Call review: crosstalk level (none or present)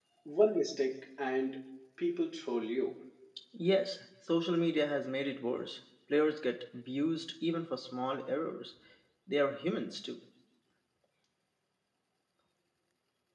none